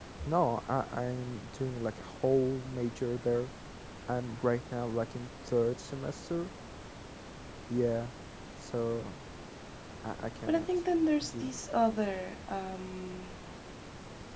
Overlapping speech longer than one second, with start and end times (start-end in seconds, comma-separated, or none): none